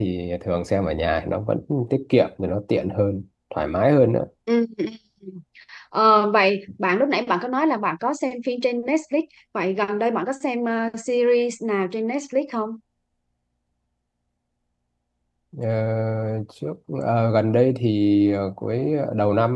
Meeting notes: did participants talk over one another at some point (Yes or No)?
No